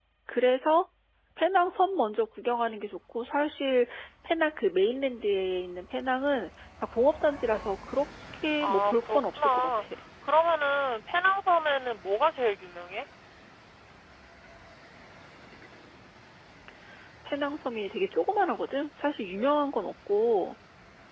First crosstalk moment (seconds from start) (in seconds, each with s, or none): 8.6 s